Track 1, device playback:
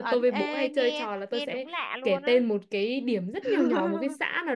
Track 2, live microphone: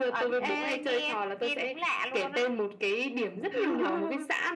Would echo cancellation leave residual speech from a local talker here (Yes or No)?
No